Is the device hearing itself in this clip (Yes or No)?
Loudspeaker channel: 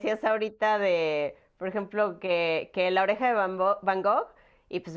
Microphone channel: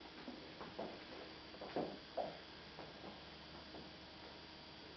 No